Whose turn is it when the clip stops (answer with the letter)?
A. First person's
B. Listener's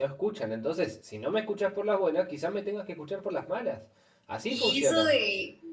B